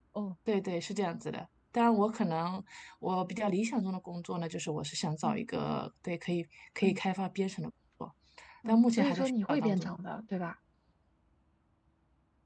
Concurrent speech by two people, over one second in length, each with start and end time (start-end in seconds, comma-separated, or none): 8.7-10.0